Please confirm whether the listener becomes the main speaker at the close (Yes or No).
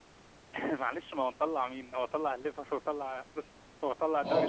Yes